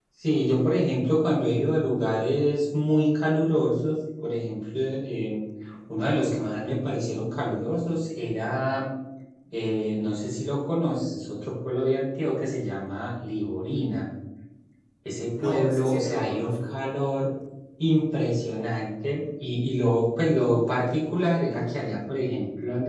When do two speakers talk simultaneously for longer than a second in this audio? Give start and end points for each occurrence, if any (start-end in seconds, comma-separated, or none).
15.3-16.8